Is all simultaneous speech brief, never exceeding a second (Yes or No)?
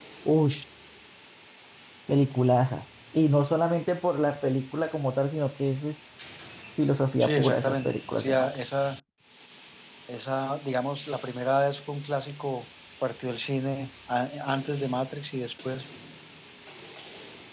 No